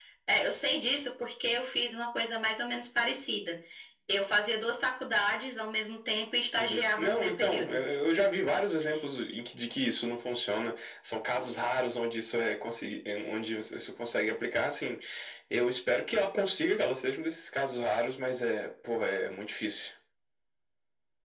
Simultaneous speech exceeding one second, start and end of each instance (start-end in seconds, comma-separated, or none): 6.5-7.8